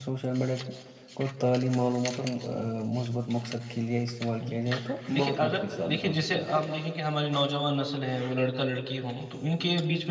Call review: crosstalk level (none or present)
present